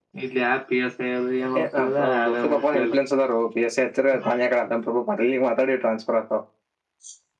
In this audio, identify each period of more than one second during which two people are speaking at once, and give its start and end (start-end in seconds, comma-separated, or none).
1.6-2.9